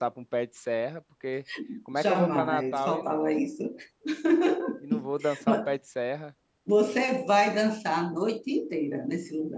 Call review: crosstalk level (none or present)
present